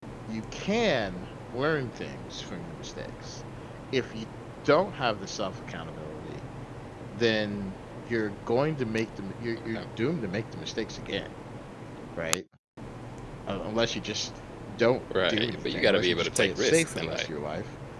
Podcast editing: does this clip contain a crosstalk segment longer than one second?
Yes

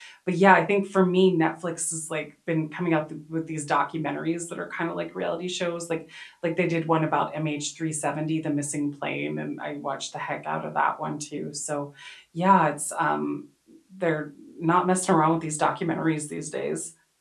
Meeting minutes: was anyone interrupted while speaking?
No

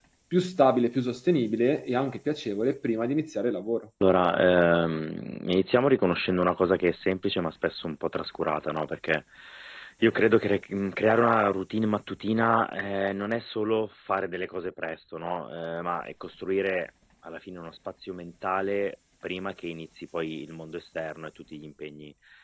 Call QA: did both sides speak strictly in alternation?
Yes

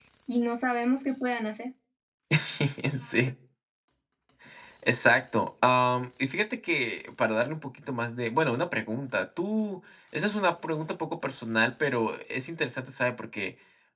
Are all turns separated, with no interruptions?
Yes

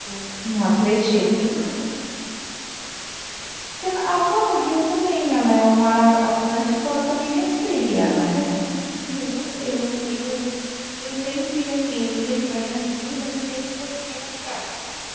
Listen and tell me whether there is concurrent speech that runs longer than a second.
No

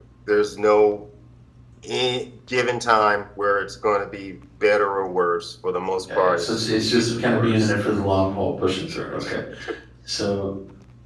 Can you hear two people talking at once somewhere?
Yes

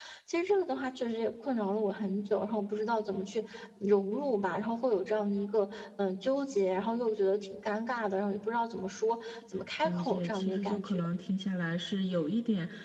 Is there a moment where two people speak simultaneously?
Yes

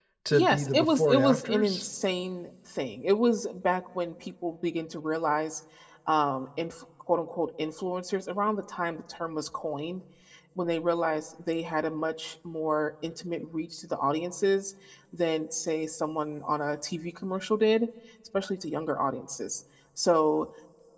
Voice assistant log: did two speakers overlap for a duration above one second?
Yes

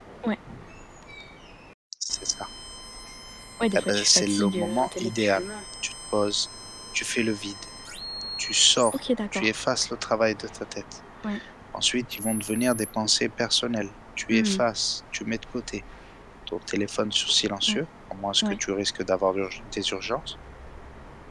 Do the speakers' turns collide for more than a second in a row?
Yes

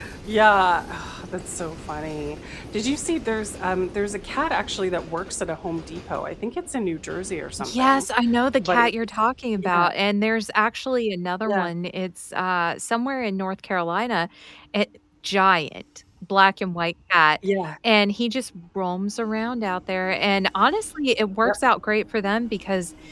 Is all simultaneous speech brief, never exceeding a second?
Yes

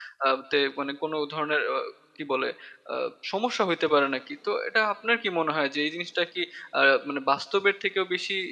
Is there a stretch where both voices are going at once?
No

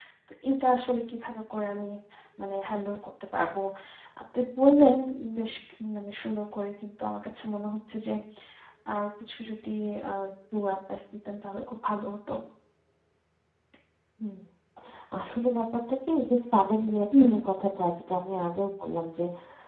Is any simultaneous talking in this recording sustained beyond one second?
No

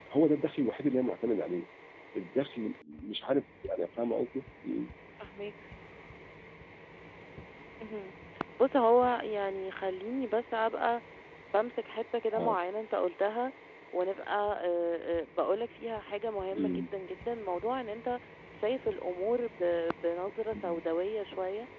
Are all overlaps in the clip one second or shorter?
Yes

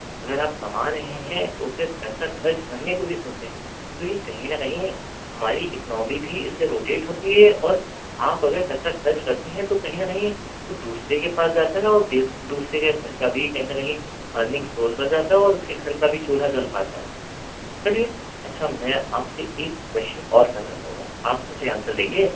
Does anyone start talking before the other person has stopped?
No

